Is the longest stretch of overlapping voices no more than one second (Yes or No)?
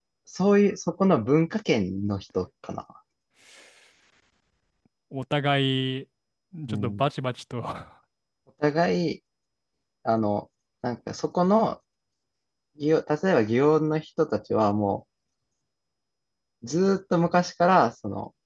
Yes